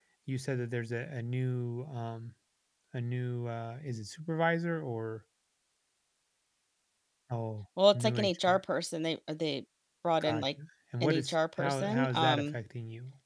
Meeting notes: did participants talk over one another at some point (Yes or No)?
Yes